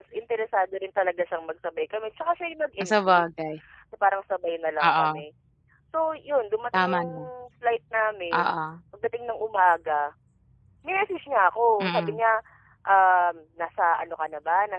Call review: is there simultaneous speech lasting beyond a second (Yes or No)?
No